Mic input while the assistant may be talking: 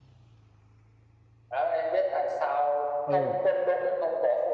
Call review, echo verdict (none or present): present